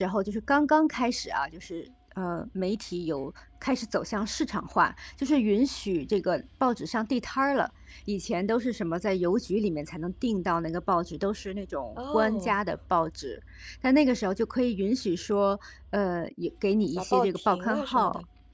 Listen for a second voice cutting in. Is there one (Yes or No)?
Yes